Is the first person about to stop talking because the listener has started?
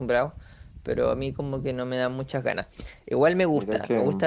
No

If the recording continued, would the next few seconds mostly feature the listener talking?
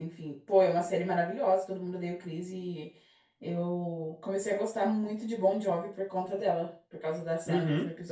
Yes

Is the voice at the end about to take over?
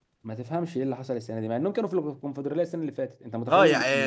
Yes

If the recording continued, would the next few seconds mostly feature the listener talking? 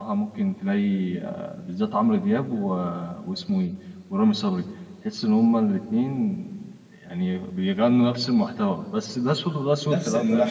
Yes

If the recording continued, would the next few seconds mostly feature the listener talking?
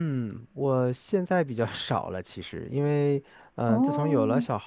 No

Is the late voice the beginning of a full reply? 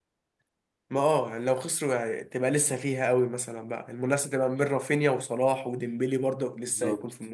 Yes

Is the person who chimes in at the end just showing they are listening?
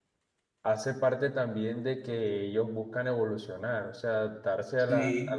Yes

